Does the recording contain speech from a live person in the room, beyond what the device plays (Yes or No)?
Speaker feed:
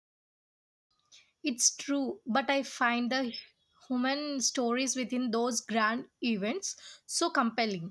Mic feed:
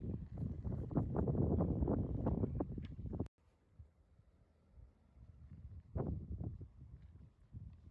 No